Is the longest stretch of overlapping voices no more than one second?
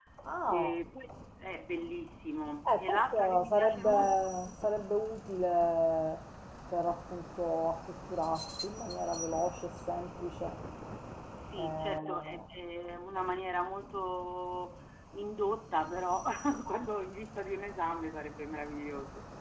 No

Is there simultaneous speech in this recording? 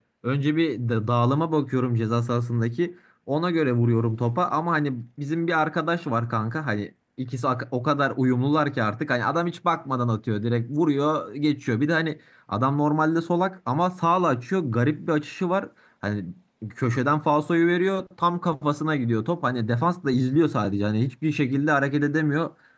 No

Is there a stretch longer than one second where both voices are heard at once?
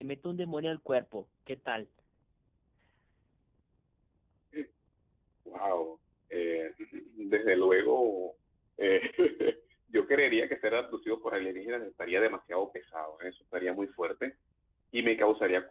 No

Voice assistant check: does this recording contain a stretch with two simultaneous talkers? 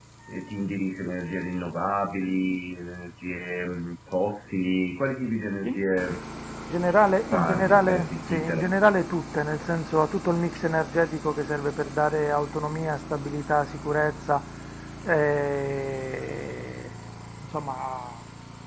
Yes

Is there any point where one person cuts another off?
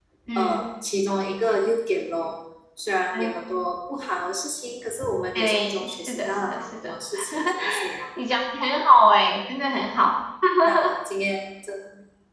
Yes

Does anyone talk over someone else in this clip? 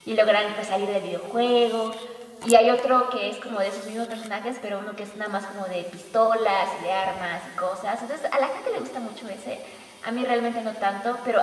No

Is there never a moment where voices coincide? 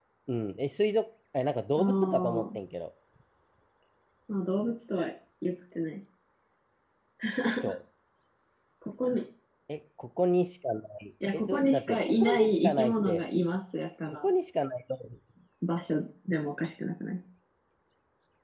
No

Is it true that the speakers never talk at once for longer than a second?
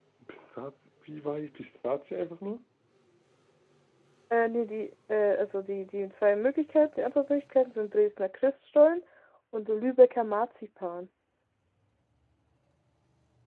Yes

